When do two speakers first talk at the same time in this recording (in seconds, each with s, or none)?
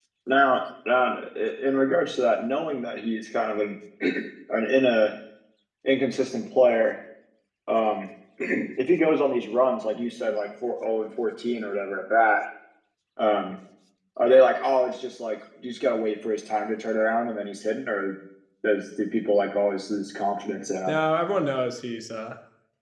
none